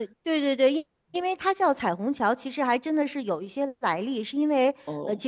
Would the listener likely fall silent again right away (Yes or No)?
Yes